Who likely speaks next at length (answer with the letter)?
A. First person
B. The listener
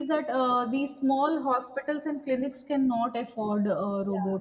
B